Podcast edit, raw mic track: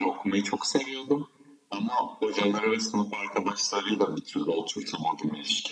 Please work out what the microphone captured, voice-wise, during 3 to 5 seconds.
echo only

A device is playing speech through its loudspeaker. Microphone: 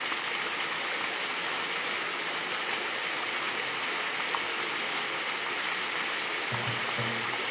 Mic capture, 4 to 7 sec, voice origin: neither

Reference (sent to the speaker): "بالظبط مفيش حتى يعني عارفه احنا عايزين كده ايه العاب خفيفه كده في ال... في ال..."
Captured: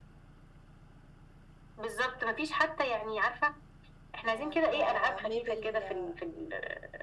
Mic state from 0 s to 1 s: neither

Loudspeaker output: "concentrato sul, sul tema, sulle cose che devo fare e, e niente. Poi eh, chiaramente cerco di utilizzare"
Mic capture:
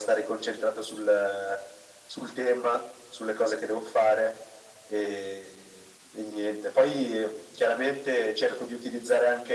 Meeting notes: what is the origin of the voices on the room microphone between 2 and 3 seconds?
echo only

